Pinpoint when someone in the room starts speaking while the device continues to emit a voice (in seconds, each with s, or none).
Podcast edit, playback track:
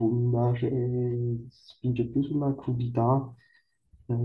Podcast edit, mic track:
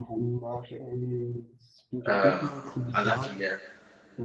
2.1 s